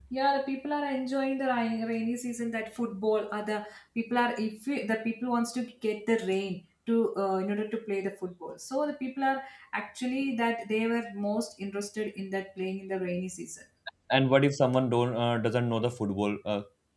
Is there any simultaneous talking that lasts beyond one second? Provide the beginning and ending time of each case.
none

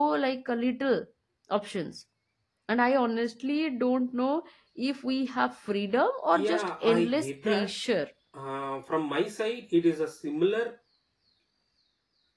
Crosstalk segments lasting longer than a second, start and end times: 6.3-7.7

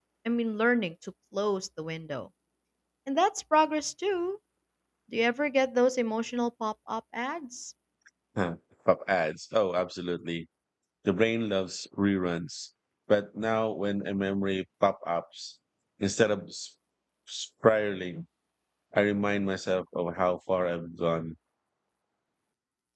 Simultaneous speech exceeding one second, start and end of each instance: none

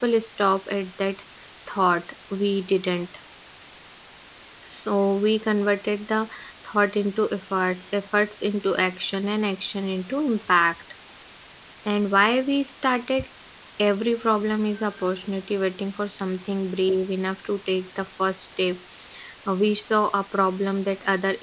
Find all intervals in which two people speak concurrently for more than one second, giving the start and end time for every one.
none

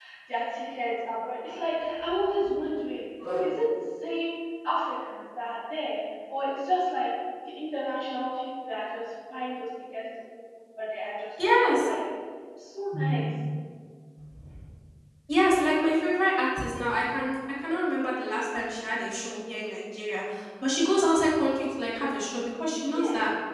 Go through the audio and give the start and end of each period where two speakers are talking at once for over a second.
none

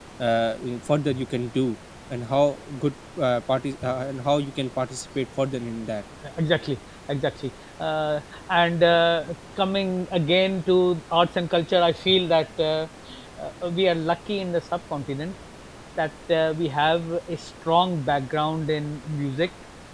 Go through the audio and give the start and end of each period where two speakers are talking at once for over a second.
none

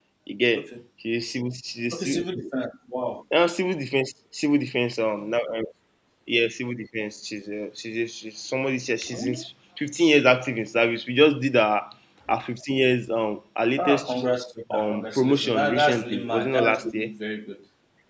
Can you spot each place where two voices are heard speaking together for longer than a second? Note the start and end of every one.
14.7-17.1

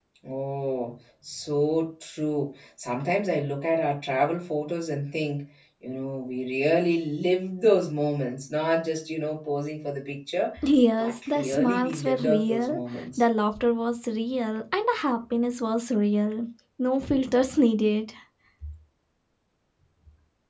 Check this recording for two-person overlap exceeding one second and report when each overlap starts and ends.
11.0-12.8

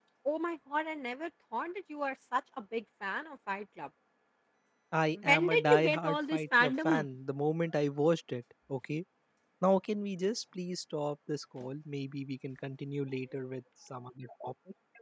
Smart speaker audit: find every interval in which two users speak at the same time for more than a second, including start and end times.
5.1-7.0

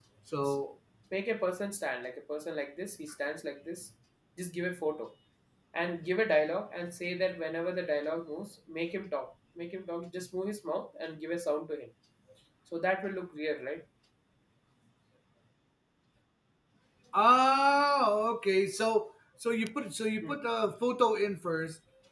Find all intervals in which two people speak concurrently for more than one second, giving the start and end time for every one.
none

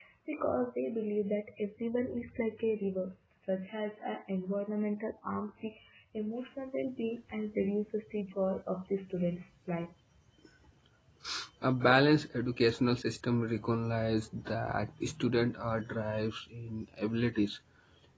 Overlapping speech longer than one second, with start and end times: none

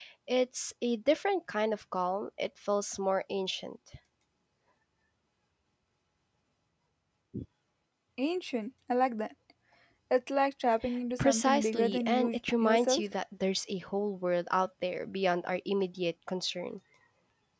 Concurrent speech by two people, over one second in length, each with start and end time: 11.2-13.0

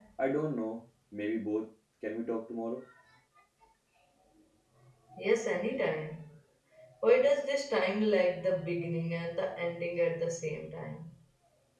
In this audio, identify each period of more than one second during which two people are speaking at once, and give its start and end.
none

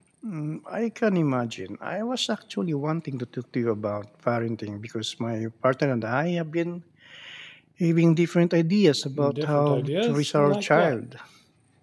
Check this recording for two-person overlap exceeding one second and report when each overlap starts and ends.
9.4-11.0

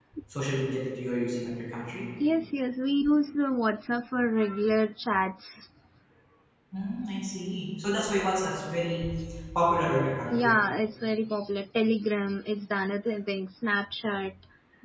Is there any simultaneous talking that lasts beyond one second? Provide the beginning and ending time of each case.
none

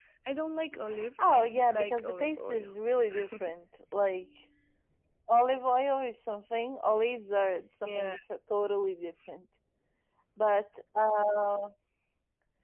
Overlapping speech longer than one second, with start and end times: 1.2-2.7

